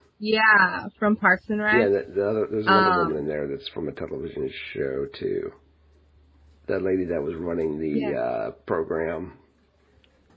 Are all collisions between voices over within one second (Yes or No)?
Yes